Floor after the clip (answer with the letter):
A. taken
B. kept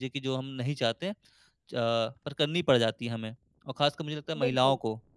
B